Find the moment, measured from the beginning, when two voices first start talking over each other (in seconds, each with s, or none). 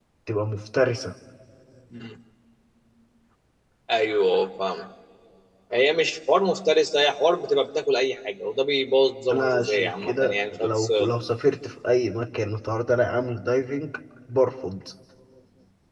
9.3 s